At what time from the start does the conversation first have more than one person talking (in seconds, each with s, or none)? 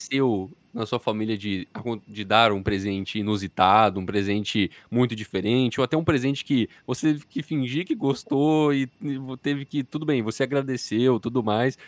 none